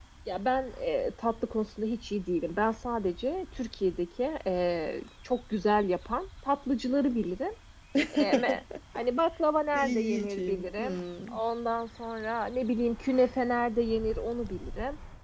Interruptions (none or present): present